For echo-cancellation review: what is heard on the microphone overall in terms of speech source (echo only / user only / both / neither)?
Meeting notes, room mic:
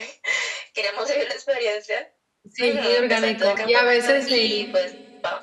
both